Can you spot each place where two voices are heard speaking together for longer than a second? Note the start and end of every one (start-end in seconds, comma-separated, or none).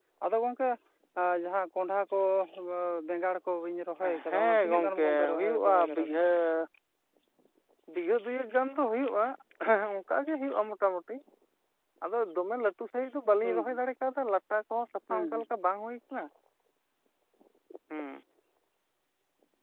4.3-6.2